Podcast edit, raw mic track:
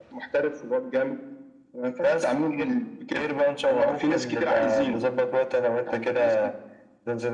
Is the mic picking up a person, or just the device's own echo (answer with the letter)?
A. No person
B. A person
A